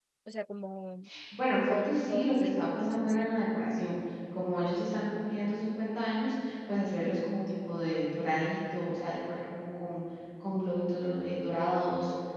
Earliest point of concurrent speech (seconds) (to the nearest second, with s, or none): 2 s